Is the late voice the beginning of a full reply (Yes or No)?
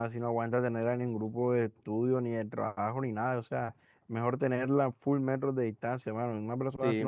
No